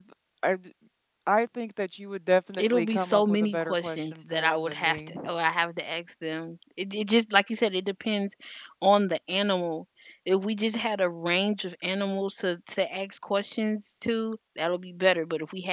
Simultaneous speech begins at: 2.5 s

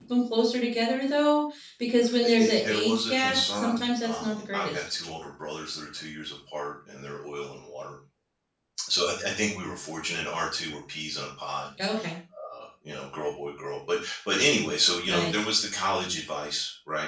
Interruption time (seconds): 2.2 s

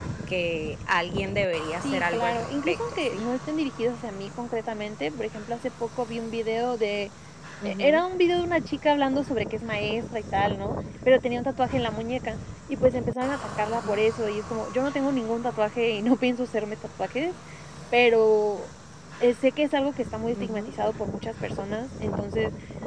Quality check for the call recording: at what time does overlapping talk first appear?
1.8 s

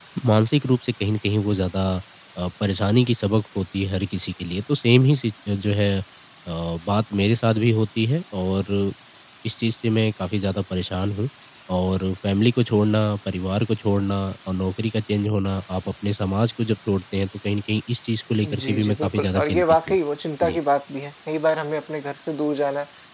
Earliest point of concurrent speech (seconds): 18.4 s

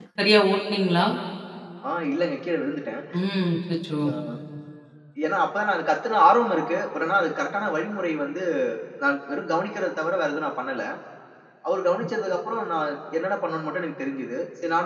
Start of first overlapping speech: none

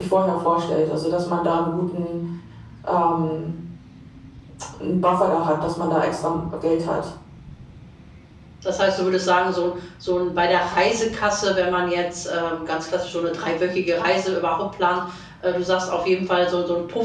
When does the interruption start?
none

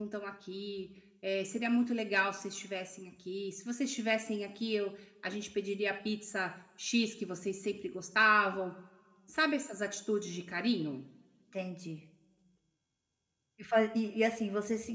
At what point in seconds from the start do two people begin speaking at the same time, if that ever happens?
none

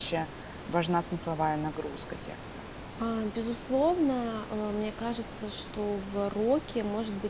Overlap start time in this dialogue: none

